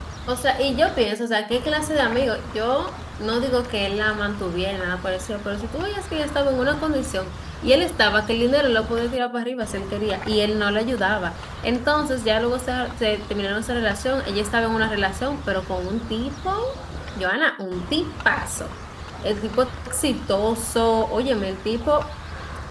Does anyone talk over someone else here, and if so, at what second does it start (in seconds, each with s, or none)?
none